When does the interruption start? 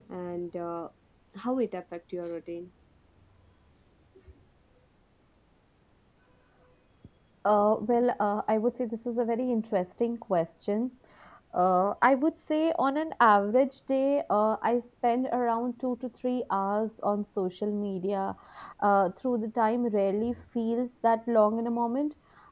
none

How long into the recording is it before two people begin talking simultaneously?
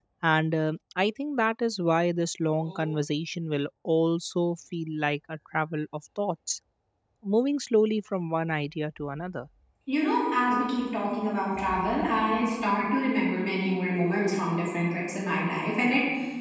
none

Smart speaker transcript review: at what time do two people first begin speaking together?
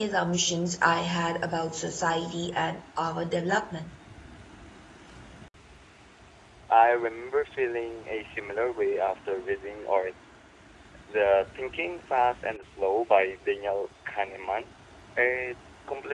none

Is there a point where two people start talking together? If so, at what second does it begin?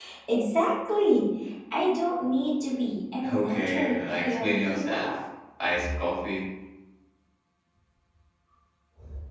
3 s

